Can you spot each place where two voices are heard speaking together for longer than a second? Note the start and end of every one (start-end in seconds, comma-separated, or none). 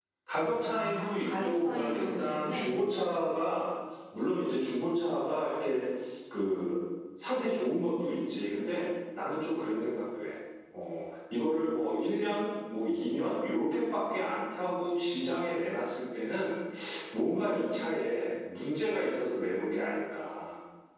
0.7-2.7